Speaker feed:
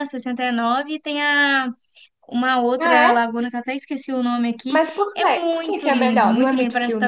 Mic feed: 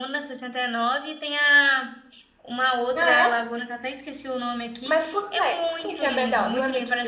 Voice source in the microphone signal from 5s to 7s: echo only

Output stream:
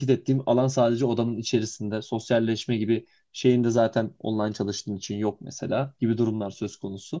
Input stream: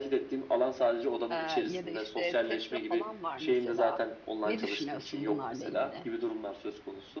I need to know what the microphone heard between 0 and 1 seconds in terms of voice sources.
echo only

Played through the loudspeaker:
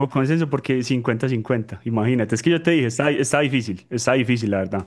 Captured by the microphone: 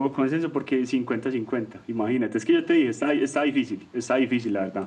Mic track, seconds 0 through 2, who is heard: echo only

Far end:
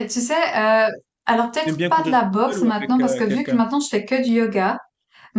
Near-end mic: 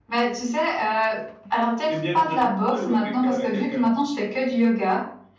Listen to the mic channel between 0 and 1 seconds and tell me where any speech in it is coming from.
echo only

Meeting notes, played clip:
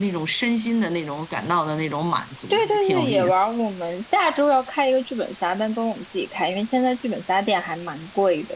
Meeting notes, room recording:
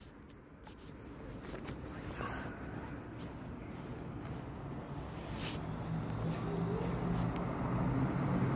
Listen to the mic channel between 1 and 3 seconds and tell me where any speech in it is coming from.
neither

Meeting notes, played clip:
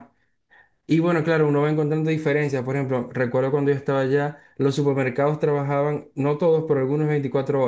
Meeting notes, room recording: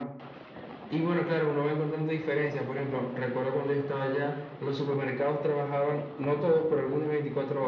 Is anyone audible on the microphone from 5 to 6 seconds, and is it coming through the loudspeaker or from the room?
echo only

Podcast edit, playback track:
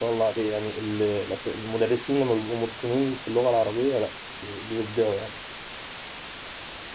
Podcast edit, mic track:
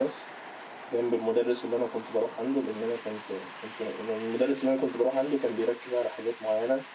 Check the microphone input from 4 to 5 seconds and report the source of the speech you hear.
user only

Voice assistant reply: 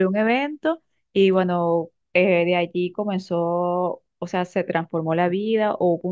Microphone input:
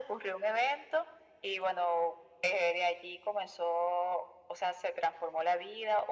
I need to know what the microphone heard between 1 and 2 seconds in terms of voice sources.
echo only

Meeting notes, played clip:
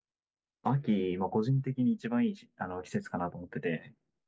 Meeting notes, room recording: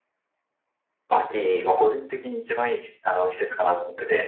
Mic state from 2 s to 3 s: echo only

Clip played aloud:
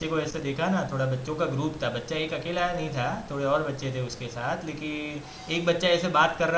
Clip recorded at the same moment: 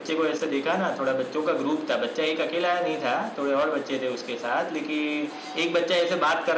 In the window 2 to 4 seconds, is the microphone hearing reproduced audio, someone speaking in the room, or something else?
echo only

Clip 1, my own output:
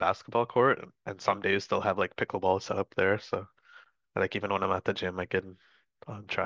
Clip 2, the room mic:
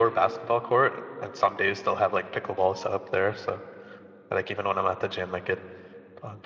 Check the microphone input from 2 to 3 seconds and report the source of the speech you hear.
echo only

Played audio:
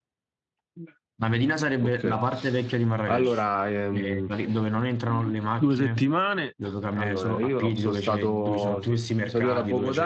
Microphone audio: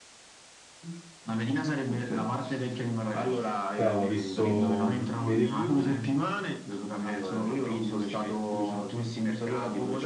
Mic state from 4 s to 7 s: both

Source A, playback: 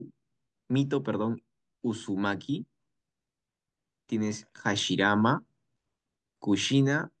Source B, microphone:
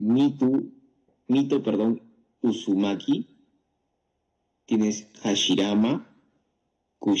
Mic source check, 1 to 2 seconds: echo only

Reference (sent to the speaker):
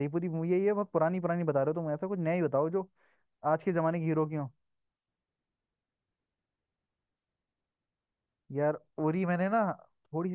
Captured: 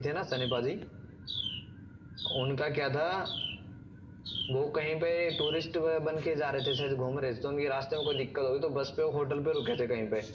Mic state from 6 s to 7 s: user only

